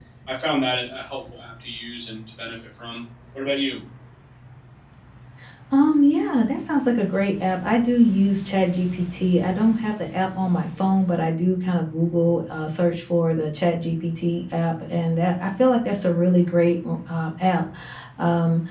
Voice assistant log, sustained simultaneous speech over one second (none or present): none